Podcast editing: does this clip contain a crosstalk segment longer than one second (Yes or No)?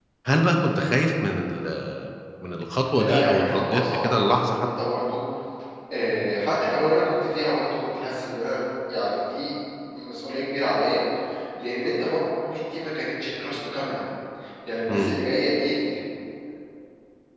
Yes